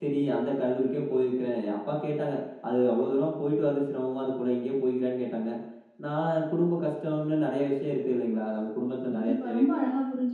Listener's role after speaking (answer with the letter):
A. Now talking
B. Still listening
A